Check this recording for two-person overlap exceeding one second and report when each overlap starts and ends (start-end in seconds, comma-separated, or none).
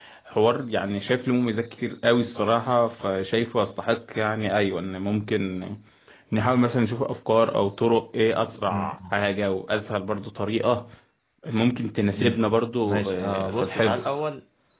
12.8-14.1